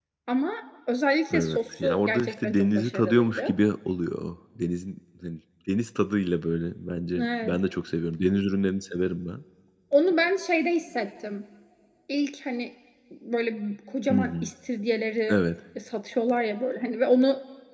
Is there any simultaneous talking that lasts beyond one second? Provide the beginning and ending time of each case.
1.3-3.5

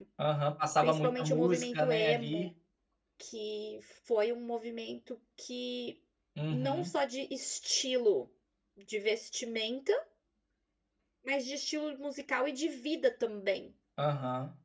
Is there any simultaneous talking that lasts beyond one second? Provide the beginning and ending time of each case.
0.8-2.5

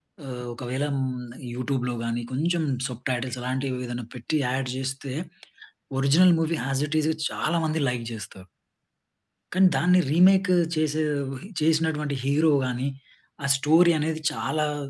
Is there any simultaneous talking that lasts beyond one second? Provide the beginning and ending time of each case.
none

